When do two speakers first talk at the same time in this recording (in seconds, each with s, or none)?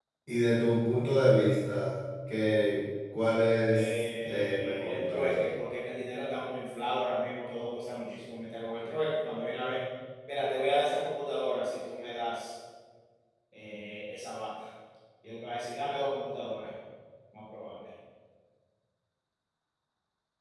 3.7 s